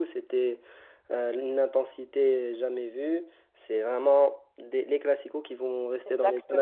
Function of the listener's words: taking over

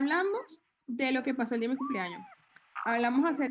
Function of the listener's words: listening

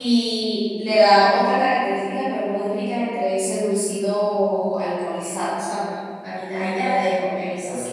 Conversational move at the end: taking over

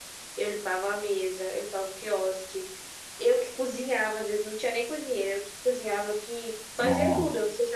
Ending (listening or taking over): listening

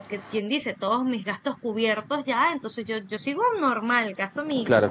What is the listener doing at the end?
listening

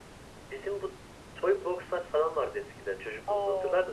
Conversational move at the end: taking over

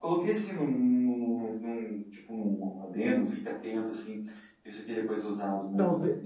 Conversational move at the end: taking over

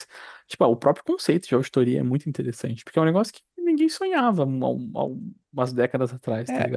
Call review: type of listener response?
taking over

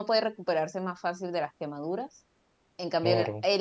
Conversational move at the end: listening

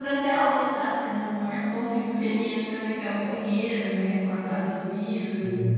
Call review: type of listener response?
listening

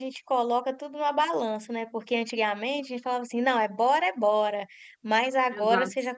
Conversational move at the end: listening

